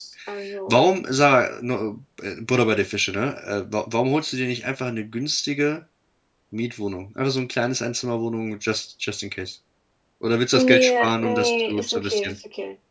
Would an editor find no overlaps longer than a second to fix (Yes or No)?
No